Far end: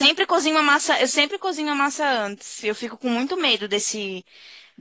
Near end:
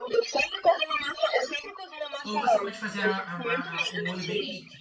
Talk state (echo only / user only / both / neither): both